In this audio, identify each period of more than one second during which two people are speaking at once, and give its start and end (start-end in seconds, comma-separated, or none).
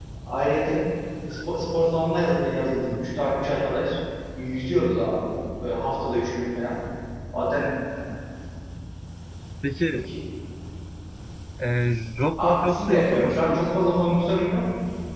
12.4-13.7